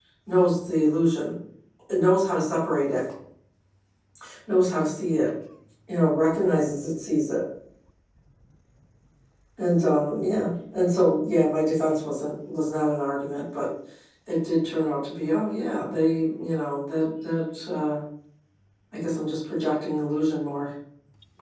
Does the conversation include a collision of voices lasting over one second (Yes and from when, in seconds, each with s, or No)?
No